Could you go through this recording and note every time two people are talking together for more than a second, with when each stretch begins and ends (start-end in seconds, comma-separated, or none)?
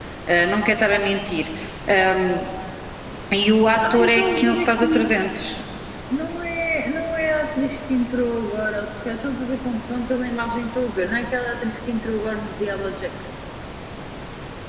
3.9-5.1